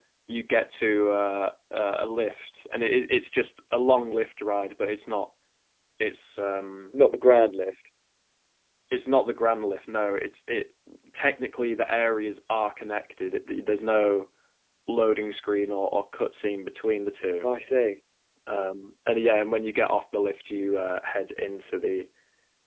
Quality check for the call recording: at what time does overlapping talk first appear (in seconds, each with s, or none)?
none